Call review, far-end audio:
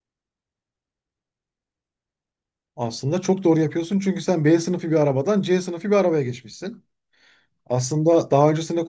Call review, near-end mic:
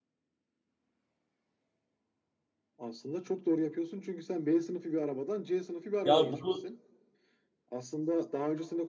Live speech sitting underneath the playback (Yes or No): No